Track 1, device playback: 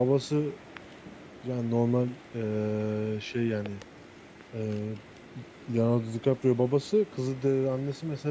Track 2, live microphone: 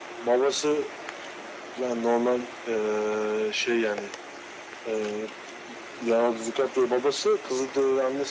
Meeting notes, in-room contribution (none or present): none